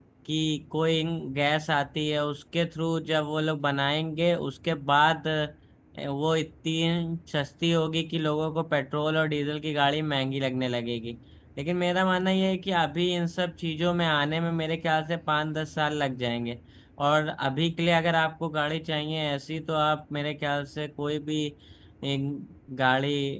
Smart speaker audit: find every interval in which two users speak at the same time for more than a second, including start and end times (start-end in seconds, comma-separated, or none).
none